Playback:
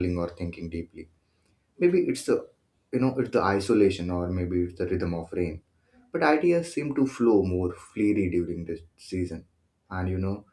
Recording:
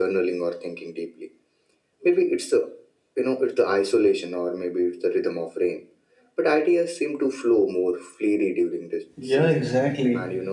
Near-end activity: present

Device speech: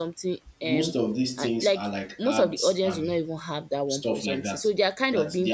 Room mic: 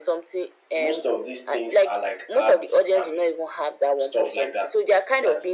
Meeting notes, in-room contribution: none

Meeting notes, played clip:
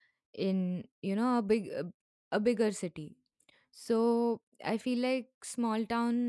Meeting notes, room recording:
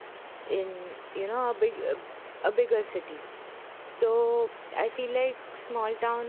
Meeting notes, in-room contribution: none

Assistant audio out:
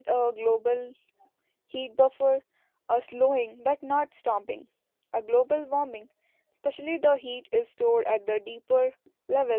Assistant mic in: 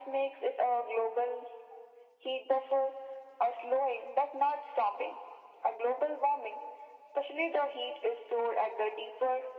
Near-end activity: none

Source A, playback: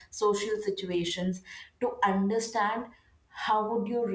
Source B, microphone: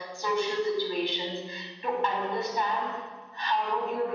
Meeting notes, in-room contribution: none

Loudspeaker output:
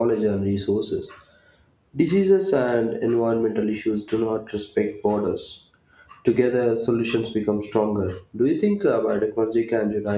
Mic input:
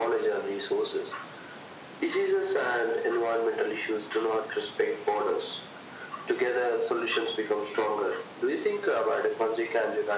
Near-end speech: none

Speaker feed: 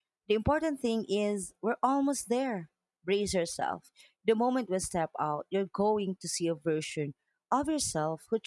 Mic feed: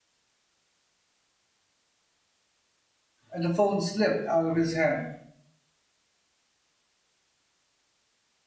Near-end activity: present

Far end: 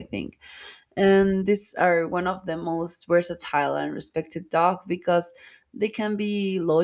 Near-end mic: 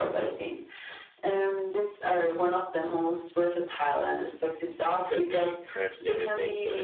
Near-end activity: present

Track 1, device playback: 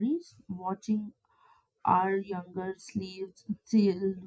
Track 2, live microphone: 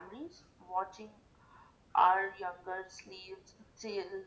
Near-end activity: none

